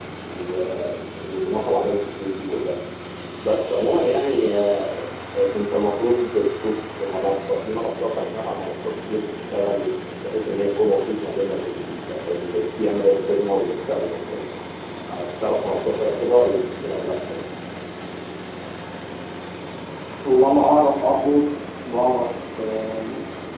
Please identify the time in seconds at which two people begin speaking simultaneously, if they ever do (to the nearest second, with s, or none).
none